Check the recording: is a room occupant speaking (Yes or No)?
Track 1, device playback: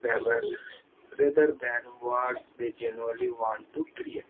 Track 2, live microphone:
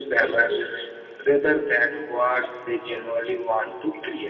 No